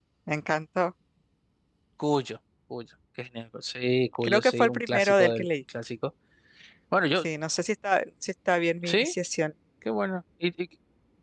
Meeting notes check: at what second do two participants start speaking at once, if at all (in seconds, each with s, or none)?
4.2 s